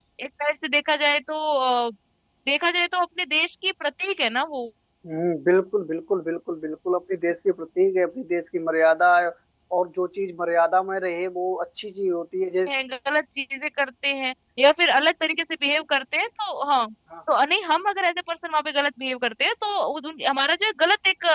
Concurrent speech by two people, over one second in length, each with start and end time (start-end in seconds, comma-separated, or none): none